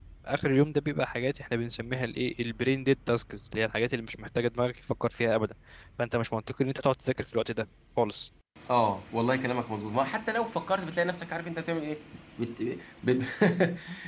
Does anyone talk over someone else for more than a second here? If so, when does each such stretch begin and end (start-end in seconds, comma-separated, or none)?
none